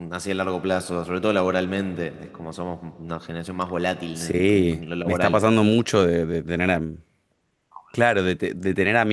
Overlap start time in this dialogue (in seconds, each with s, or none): 4.2 s